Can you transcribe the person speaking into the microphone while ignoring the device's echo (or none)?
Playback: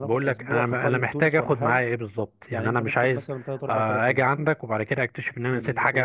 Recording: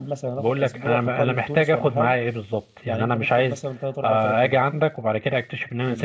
none